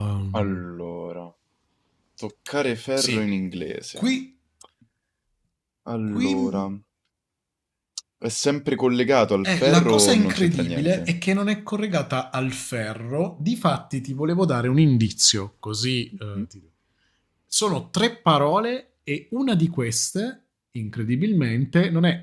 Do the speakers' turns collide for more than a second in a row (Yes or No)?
Yes